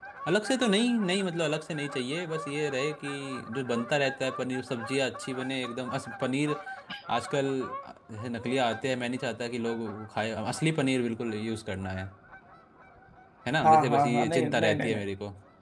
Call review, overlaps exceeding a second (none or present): present